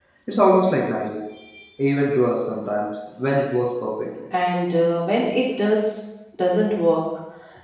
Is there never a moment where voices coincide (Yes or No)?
Yes